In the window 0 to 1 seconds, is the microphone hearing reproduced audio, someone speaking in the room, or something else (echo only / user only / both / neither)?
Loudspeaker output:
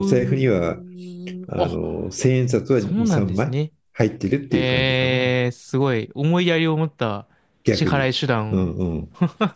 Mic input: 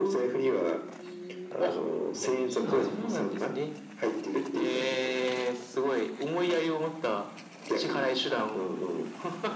echo only